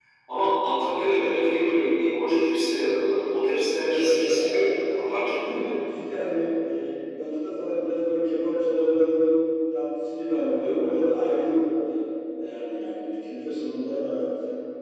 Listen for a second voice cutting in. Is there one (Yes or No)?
Yes